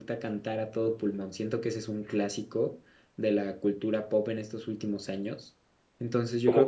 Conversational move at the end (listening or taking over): taking over